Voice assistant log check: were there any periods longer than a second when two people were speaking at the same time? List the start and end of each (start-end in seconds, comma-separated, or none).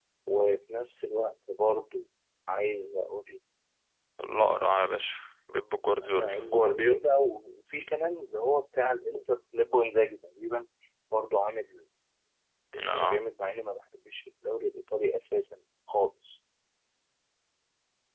none